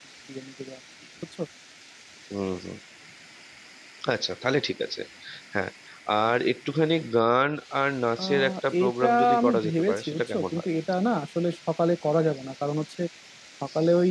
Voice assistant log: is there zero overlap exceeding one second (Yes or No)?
No